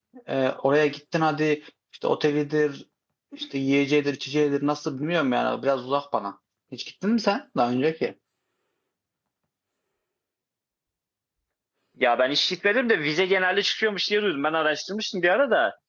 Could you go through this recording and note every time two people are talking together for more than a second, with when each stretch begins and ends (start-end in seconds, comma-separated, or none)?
none